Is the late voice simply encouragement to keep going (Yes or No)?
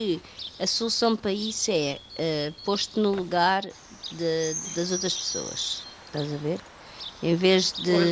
No